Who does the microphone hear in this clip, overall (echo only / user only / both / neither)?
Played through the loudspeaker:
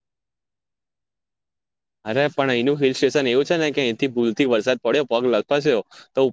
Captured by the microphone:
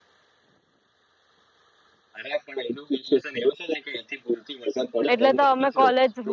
both